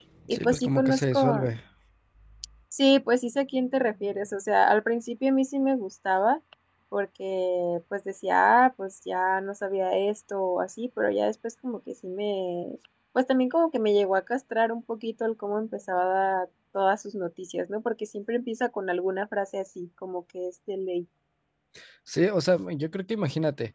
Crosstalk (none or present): present